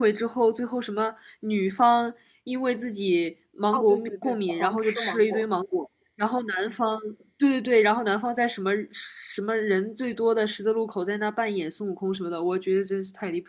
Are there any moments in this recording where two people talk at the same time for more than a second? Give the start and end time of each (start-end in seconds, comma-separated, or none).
3.7-5.5